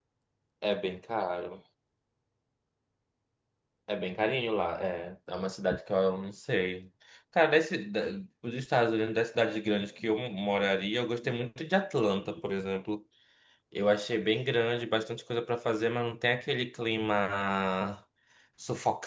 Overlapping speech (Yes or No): No